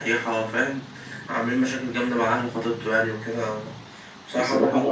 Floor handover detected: No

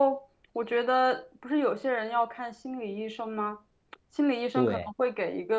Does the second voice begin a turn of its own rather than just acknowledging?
No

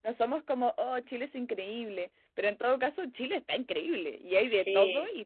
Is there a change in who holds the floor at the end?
No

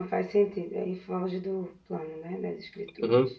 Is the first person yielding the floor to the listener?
Yes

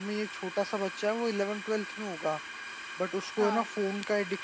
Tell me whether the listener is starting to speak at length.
No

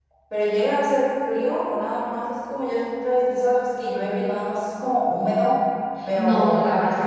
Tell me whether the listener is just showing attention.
No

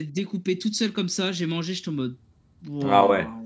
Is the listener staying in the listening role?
No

